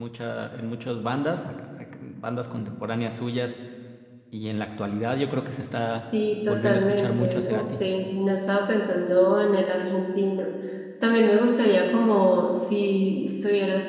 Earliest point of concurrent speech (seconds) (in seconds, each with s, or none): 6.5 s